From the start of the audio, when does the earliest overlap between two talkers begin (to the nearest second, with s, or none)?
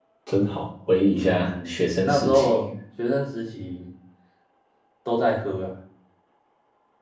1 s